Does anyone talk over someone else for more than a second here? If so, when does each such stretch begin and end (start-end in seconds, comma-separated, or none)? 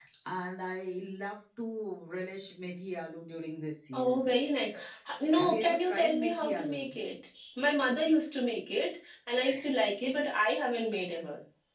5.3-6.9